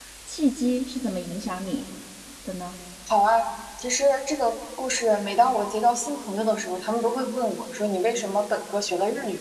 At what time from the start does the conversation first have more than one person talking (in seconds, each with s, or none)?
none